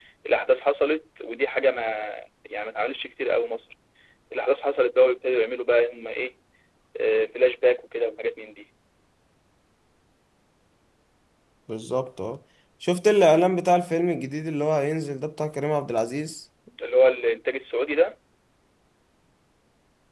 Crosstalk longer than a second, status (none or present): none